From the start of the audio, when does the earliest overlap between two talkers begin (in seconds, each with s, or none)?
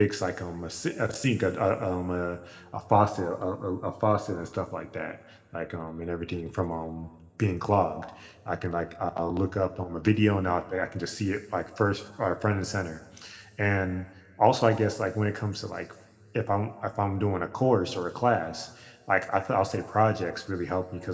none